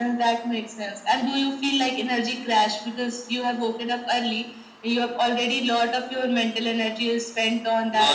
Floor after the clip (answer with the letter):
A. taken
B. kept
A